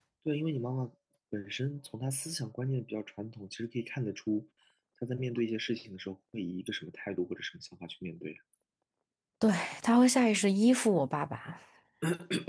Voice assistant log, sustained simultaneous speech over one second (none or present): none